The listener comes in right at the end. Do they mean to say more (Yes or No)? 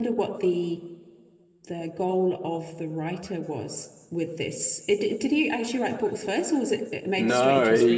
Yes